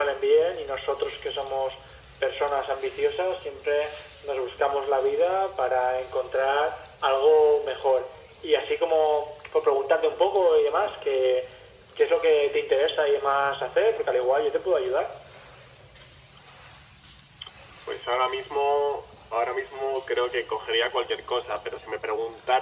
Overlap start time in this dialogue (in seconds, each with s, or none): none